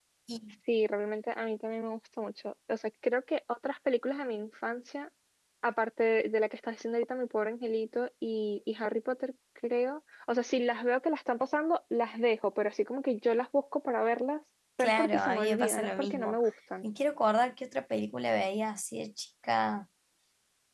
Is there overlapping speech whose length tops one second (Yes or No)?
Yes